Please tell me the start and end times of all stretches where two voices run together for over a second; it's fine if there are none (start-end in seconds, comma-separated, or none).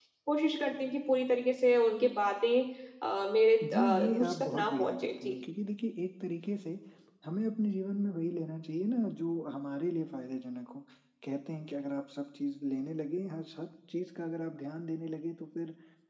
3.7-5.3